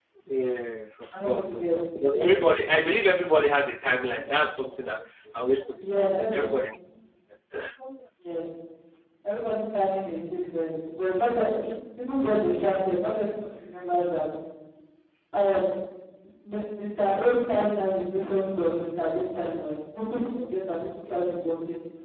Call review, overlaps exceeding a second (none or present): present